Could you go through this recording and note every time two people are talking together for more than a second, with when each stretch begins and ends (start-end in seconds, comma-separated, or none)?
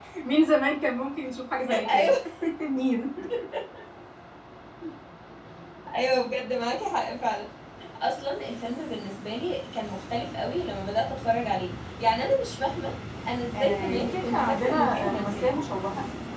13.6-15.5